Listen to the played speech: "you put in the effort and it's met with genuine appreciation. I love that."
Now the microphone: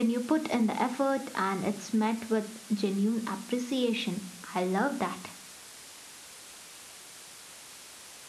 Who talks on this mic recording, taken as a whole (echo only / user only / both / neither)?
echo only